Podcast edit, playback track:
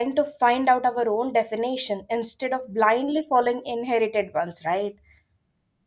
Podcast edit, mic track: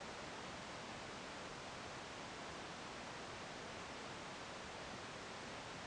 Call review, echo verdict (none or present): none